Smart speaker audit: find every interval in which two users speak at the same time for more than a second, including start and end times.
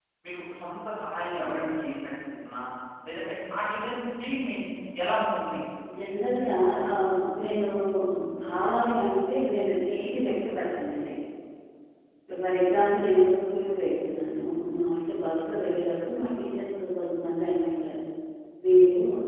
none

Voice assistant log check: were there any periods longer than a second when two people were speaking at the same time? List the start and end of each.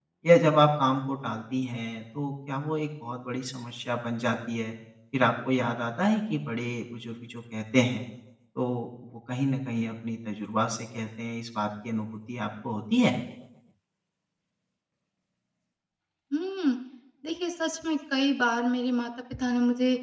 none

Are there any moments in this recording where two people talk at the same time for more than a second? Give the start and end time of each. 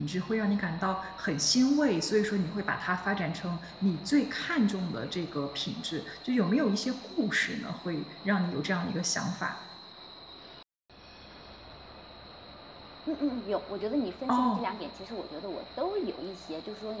none

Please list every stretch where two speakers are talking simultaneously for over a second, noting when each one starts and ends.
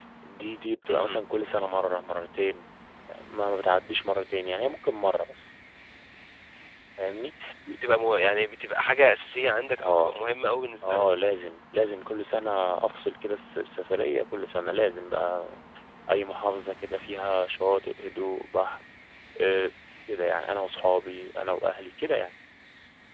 none

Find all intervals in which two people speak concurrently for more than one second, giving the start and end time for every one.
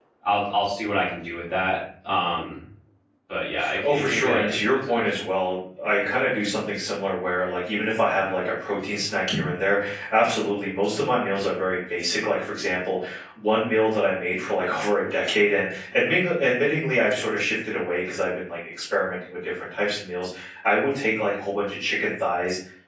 3.8-5.0

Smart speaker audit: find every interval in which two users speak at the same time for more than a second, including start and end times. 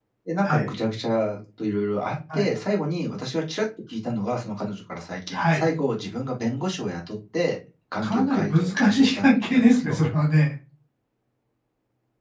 8.0-10.0

